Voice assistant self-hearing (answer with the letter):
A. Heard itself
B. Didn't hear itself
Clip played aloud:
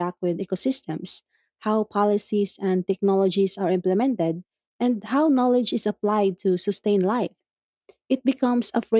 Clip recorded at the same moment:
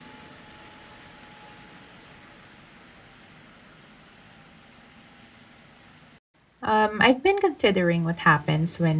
B